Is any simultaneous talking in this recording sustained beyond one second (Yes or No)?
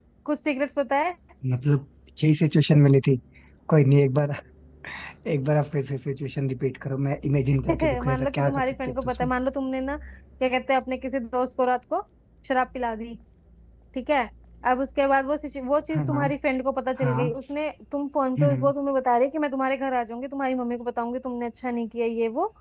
Yes